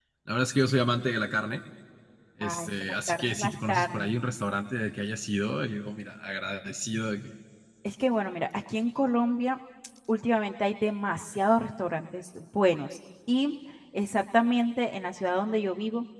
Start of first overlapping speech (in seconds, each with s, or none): 2.4 s